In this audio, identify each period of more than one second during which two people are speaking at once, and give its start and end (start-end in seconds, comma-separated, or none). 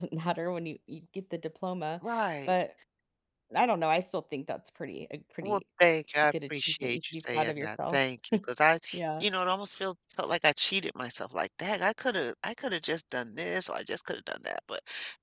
6.6-8.0